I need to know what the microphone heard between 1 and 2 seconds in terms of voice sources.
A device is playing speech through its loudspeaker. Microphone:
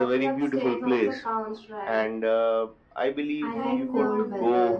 echo only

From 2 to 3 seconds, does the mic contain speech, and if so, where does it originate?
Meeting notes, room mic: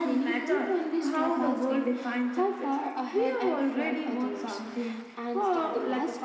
echo only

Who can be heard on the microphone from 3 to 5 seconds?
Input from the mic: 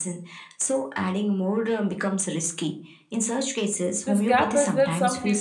both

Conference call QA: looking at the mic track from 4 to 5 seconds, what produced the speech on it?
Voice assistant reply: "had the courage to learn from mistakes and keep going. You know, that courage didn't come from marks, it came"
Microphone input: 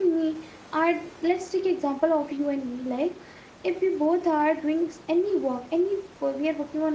user only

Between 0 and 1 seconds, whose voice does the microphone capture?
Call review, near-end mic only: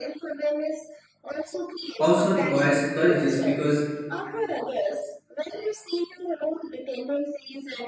echo only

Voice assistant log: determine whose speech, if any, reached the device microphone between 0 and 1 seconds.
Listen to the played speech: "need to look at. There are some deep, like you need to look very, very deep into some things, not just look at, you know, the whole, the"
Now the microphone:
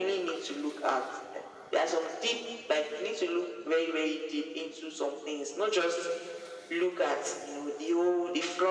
echo only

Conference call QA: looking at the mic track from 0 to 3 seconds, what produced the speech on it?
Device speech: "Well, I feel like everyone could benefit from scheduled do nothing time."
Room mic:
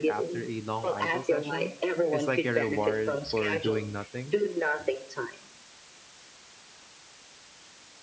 both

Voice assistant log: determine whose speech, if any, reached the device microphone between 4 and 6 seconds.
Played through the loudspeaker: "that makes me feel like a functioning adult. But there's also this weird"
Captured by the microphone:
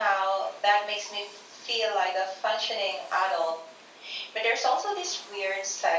echo only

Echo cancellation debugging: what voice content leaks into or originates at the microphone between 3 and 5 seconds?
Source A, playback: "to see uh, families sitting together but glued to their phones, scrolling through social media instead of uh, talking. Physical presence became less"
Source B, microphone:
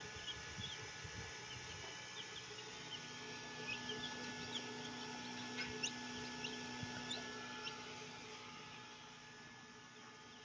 neither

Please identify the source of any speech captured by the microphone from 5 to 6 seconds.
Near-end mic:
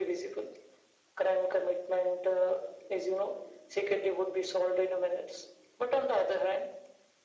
echo only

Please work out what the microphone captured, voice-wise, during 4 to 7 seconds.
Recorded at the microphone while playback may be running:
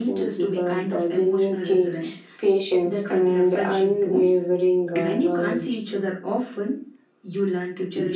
echo only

